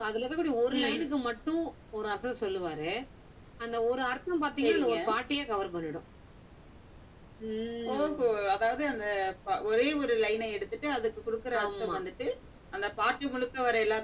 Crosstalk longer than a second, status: none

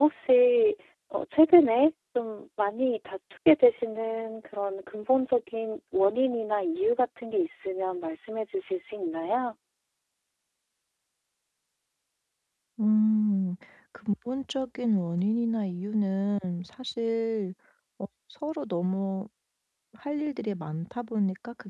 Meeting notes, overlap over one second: none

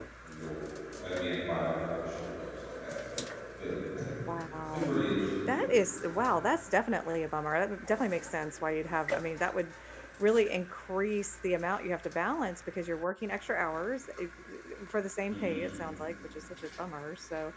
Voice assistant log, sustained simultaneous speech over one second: none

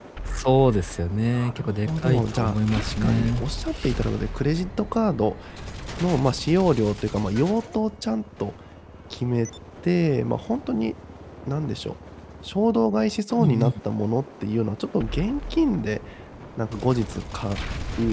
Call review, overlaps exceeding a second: present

